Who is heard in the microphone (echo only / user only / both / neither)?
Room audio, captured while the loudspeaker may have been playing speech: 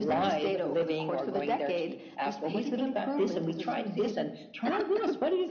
echo only